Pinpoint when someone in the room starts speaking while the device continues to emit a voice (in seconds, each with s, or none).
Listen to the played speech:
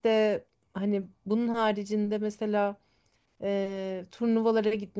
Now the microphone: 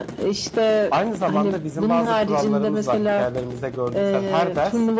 0.9 s